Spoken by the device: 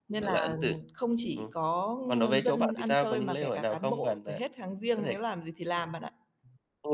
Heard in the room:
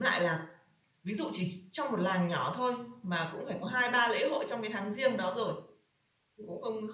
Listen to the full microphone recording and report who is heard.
user only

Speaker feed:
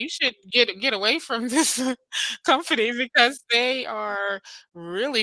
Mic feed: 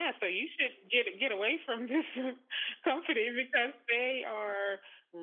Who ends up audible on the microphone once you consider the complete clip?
echo only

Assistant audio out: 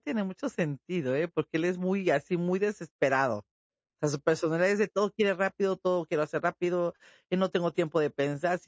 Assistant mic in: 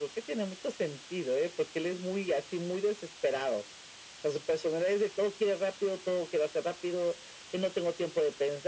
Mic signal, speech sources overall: echo only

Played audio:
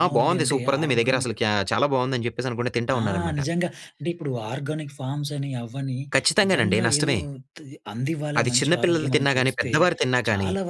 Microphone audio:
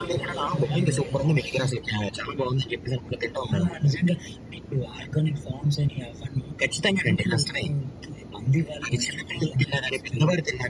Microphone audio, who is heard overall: echo only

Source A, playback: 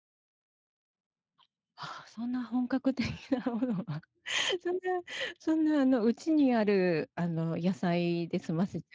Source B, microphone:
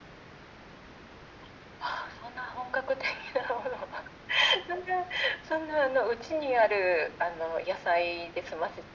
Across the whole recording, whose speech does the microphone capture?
echo only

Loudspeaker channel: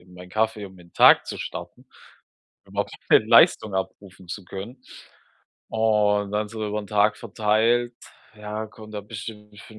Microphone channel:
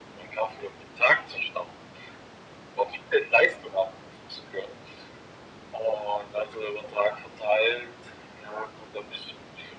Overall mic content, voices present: echo only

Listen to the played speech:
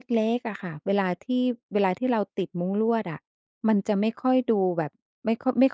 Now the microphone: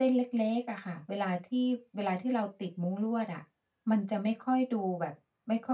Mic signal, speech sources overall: echo only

